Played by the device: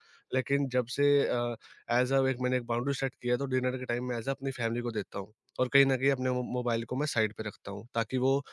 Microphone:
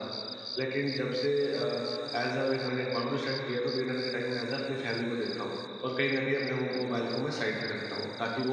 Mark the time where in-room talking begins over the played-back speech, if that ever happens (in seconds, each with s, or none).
none